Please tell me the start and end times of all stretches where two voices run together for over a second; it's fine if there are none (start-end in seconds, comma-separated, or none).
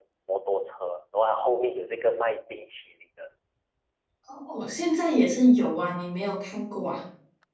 none